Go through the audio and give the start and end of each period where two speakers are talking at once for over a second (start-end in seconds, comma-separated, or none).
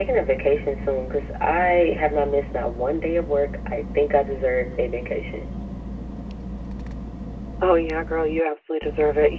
none